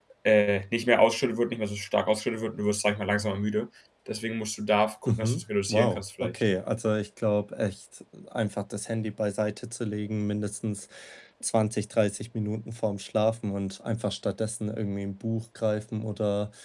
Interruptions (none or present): present